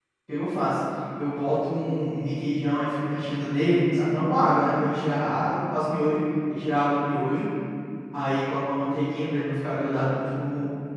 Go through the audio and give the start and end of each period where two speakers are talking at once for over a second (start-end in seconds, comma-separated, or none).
none